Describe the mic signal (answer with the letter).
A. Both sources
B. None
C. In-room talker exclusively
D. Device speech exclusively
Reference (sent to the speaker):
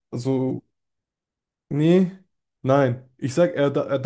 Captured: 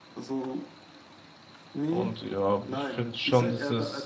A